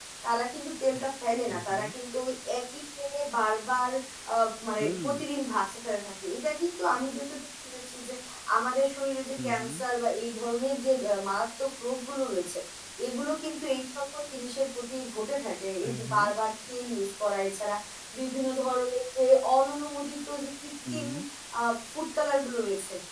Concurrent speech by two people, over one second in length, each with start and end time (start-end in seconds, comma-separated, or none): none